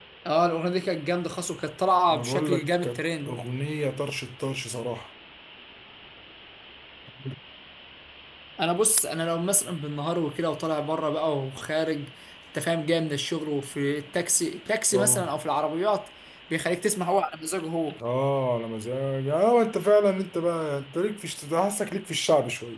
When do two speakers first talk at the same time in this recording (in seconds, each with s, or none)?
2.1 s